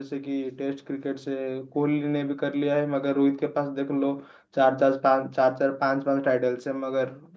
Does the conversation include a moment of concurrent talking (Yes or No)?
No